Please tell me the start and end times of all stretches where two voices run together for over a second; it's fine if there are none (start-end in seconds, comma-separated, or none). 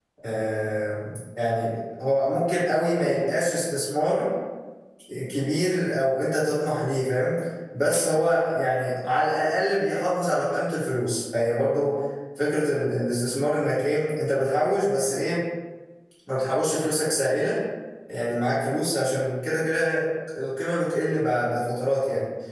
none